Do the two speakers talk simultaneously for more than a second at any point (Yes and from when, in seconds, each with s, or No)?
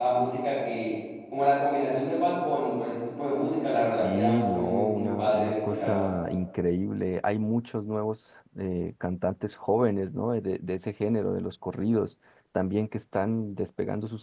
Yes, from 4.0 s